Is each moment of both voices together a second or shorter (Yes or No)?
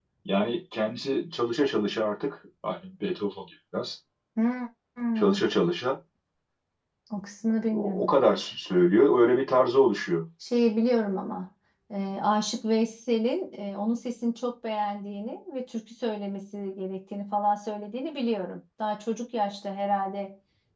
Yes